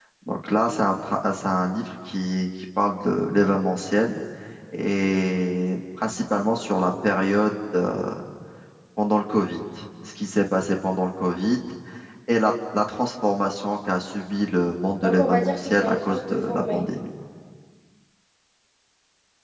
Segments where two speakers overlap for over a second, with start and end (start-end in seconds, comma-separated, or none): 15.0-16.9